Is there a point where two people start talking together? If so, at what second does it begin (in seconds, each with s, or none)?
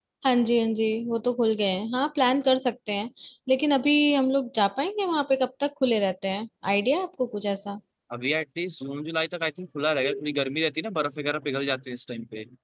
none